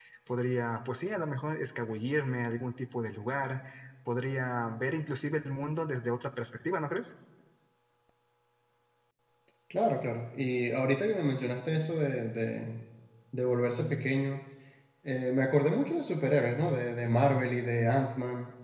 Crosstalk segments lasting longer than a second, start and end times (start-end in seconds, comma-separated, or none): none